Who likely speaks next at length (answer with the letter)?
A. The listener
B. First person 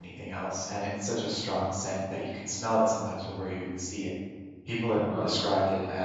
B